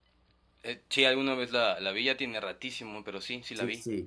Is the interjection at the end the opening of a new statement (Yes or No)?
Yes